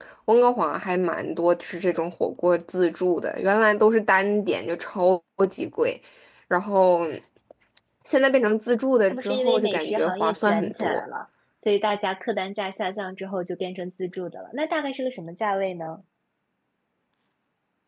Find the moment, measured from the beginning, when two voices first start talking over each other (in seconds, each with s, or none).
9.1 s